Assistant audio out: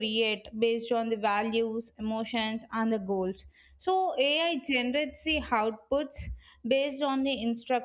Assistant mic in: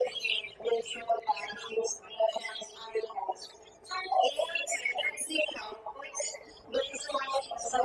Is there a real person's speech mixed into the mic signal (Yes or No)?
No